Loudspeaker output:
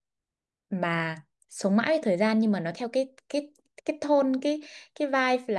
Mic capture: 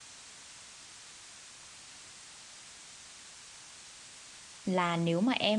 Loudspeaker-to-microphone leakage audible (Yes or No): No